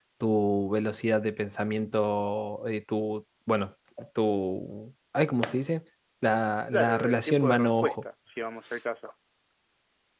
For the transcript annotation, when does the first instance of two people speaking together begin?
6.7 s

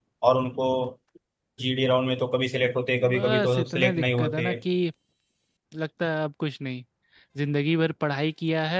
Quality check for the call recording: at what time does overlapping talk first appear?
3.0 s

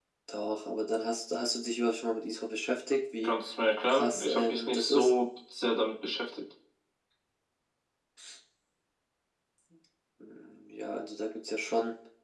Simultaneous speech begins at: 3.9 s

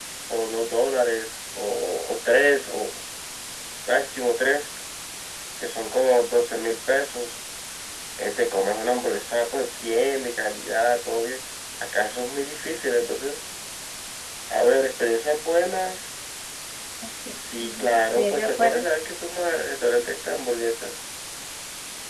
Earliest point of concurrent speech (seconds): 17.6 s

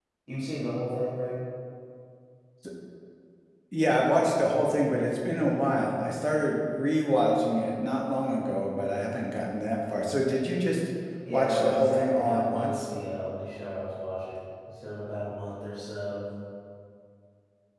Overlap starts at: 11.3 s

